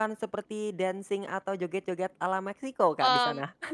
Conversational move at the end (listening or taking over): taking over